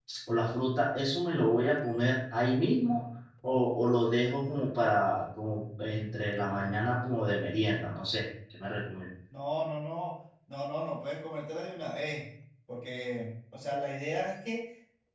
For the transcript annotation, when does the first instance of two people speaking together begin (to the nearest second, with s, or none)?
none